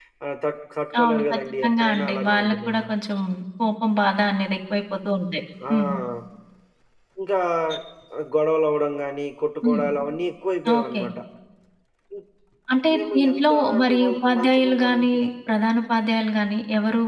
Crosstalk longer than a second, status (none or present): present